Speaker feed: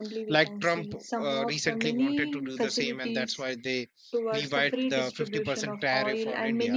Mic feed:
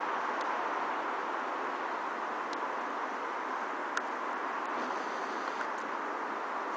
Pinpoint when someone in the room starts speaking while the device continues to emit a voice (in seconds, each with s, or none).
none